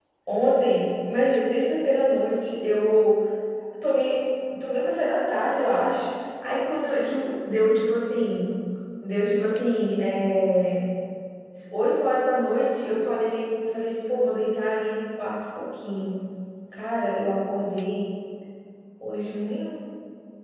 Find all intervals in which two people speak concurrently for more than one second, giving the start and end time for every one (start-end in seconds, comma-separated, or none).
none